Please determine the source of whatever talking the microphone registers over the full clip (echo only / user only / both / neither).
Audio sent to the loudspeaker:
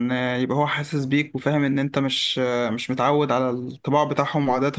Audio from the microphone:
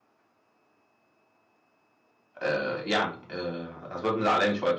user only